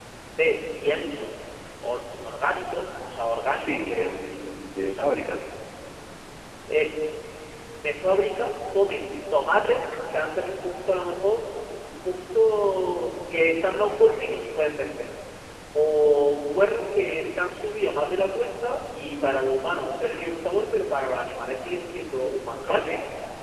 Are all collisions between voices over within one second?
Yes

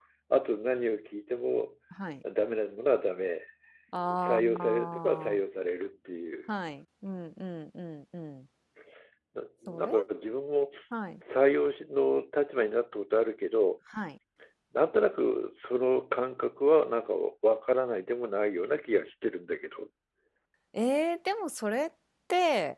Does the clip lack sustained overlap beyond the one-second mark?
No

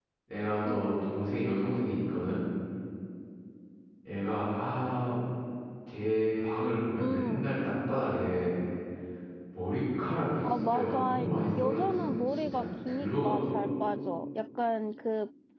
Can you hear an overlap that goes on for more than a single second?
Yes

